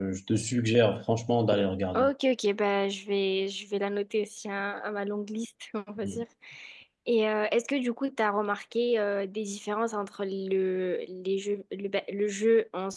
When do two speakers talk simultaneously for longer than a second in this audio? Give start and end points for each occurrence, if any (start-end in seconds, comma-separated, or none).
none